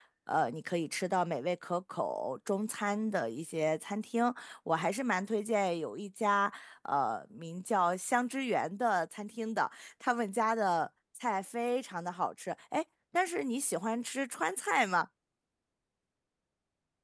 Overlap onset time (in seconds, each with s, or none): none